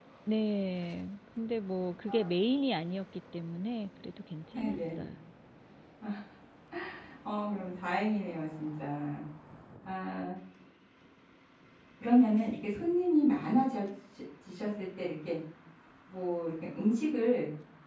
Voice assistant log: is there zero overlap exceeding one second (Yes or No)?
Yes